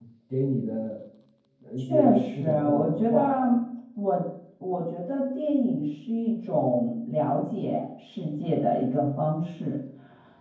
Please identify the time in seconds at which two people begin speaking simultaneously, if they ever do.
1.8 s

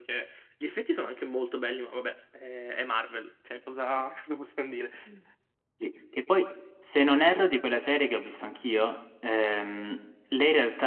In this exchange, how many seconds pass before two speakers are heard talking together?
none

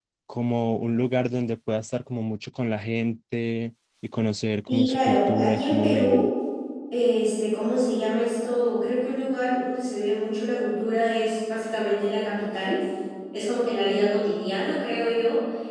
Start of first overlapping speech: 4.7 s

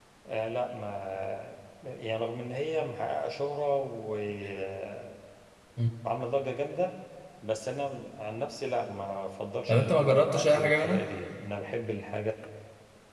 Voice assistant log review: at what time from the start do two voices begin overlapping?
9.7 s

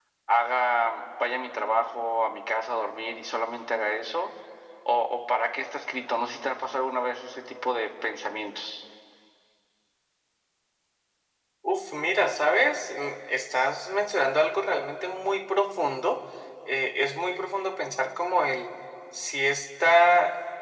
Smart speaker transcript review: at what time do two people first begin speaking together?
none

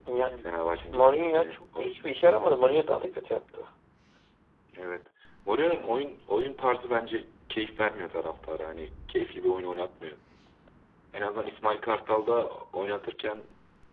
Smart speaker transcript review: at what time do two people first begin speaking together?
0.9 s

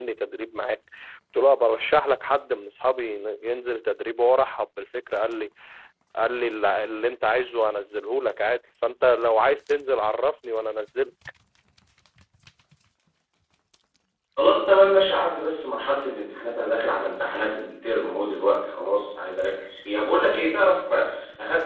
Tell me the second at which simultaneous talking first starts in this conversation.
none

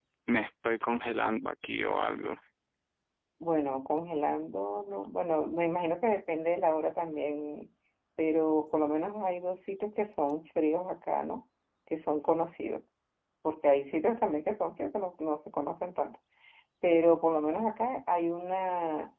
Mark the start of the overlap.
none

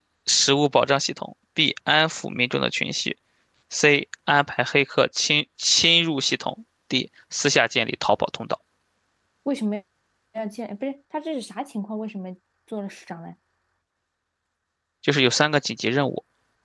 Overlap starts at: none

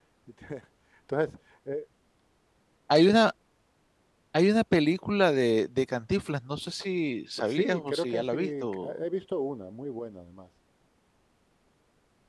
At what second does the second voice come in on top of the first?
7.4 s

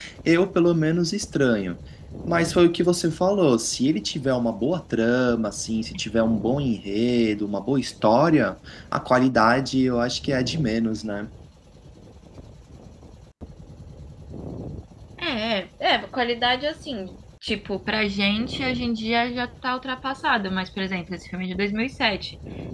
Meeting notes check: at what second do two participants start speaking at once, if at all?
none

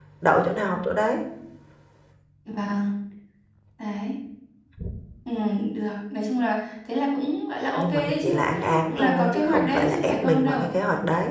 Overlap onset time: 7.8 s

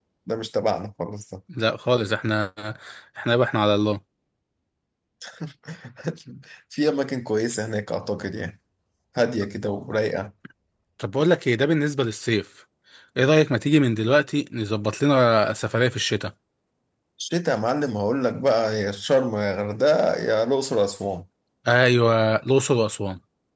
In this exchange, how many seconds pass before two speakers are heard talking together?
none

